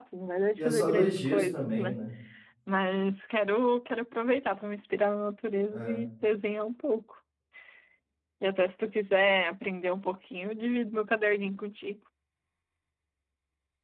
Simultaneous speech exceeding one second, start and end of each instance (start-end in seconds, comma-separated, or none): 0.6-2.0